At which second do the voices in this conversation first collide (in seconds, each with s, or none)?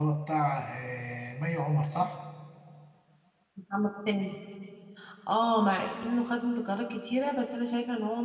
none